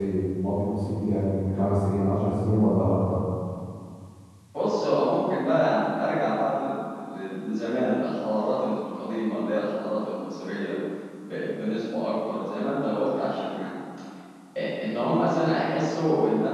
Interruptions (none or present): none